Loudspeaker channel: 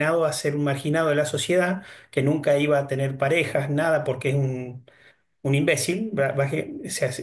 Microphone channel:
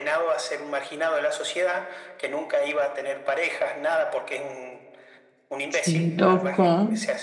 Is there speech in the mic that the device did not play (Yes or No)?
Yes